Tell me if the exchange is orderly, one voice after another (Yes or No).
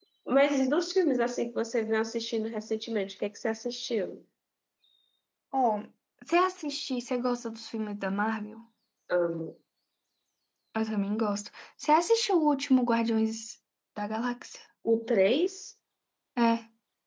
Yes